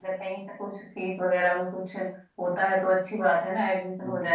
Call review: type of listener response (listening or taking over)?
taking over